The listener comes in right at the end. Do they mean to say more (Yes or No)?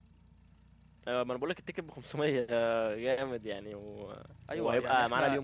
Yes